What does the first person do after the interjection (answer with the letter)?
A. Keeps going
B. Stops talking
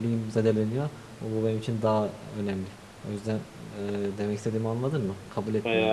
B